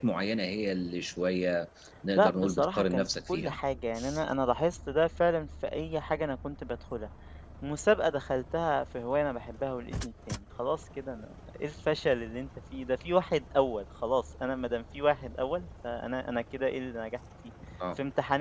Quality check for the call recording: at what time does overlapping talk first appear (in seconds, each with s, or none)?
2.2 s